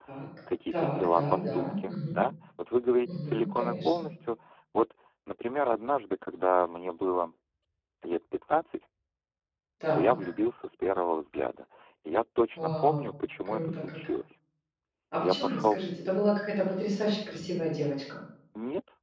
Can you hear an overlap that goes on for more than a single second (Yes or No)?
Yes